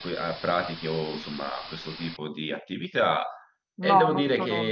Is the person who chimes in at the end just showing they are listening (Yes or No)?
No